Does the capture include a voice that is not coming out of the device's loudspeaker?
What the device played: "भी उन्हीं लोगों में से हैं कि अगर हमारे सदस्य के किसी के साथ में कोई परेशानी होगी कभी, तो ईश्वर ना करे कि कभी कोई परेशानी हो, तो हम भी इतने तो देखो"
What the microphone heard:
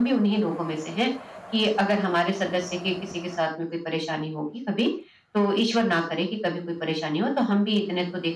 No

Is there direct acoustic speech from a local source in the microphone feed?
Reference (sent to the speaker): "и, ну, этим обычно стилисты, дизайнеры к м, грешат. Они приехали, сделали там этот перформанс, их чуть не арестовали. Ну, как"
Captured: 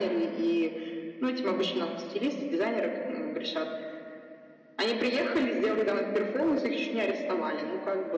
Yes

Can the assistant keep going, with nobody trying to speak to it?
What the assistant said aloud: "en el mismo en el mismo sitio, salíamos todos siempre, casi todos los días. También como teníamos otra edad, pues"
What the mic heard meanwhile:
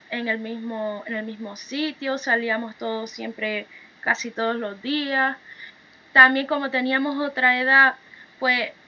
Yes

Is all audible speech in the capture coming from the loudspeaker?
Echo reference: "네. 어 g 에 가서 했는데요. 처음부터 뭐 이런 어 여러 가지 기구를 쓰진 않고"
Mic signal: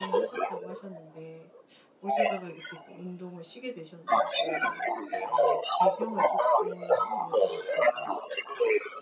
No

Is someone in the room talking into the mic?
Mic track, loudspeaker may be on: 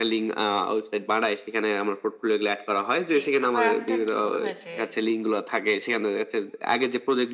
Yes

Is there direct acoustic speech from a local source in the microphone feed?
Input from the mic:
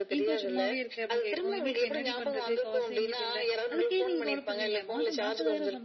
Yes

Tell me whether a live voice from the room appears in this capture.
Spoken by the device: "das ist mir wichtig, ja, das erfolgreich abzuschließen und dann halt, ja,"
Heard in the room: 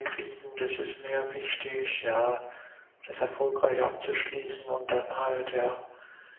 No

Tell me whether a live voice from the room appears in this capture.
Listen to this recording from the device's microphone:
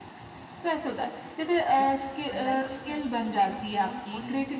Yes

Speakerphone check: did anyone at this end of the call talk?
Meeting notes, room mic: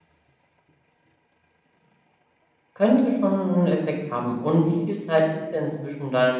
Yes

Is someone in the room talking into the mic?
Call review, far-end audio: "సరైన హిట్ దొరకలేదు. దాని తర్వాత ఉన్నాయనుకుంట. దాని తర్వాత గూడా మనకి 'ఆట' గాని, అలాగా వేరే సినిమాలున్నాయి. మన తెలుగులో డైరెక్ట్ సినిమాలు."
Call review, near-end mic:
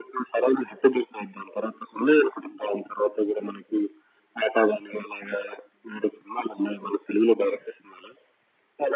No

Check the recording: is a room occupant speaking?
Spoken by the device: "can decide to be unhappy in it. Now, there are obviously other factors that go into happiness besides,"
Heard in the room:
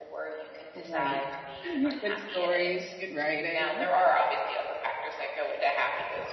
Yes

